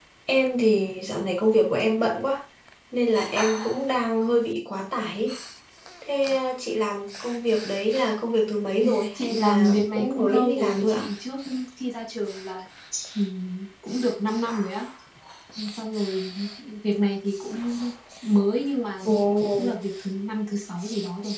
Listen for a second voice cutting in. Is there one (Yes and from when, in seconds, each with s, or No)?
Yes, from 8.8 s